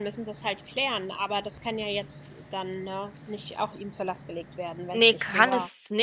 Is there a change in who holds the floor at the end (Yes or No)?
Yes